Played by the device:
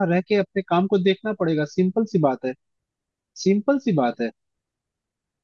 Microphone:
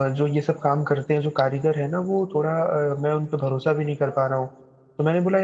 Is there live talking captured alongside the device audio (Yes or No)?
Yes